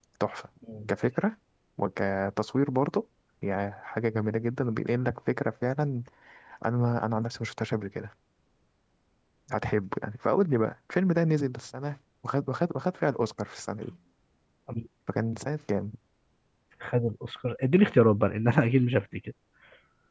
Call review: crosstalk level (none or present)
none